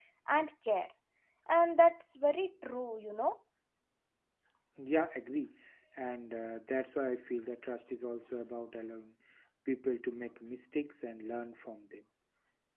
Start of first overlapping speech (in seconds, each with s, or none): none